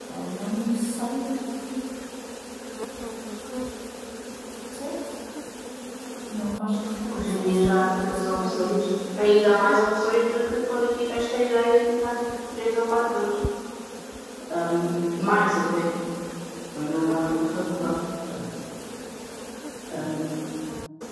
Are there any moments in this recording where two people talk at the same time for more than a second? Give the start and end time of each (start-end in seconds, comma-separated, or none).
7.2-8.7